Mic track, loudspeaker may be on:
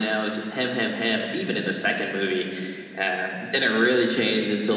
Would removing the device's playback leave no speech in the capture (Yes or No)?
Yes